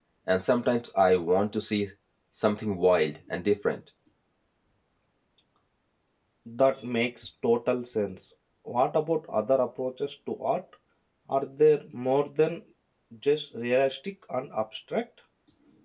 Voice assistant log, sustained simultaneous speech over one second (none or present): none